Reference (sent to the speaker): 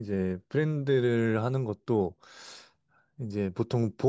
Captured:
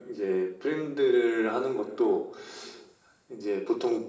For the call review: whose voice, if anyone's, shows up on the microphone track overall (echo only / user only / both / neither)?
echo only